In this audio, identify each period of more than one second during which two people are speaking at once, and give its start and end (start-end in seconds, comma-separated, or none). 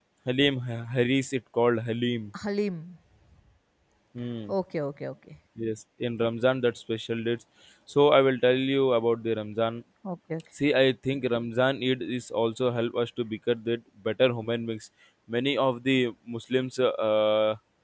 none